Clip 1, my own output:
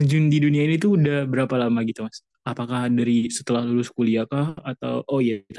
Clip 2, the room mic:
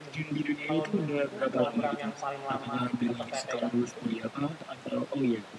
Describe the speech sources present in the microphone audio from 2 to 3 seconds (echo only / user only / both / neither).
both